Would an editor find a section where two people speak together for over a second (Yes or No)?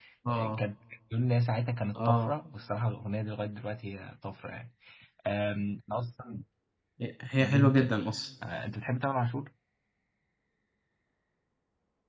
No